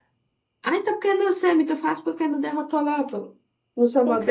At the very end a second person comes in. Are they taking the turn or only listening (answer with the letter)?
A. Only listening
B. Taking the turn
B